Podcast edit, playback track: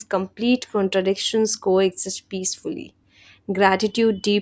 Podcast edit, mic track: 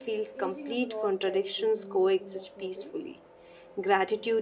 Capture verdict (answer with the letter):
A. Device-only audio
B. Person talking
B